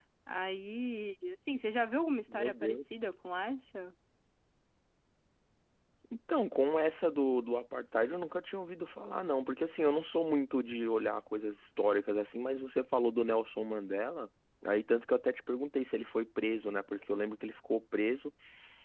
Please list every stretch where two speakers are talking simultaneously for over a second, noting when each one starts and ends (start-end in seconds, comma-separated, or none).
none